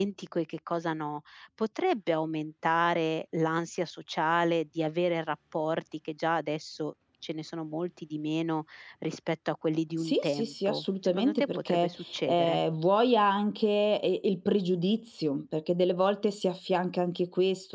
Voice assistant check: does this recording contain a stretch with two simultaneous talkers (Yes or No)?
Yes